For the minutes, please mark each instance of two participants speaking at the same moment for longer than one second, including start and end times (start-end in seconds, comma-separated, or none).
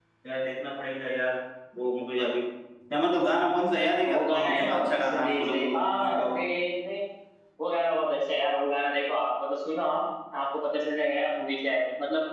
4.0-6.2